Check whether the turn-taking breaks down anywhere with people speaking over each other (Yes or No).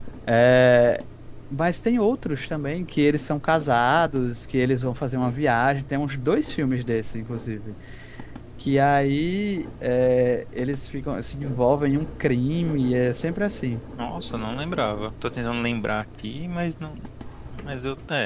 No